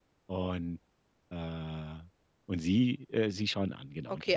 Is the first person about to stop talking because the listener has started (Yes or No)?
Yes